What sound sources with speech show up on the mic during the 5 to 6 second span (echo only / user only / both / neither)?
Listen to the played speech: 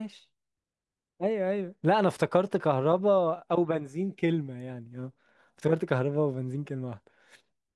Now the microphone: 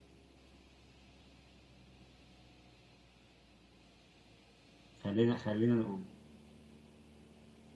user only